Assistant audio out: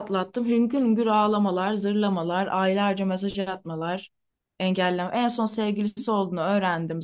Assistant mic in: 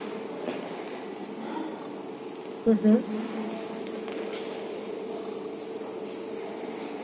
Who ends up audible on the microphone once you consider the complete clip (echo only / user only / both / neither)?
user only